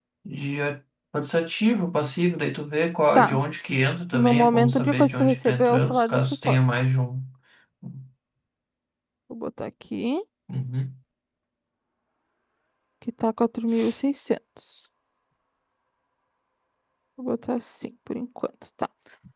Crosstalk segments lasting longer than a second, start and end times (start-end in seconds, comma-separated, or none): 4.1-6.6